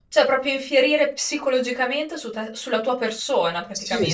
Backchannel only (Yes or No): No